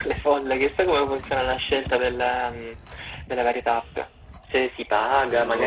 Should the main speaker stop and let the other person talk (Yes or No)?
No